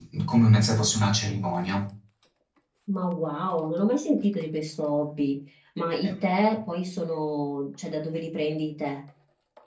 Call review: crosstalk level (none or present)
none